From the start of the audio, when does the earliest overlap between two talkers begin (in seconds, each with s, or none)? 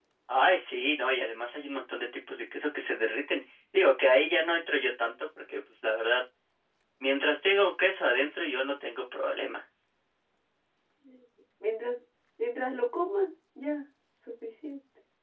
none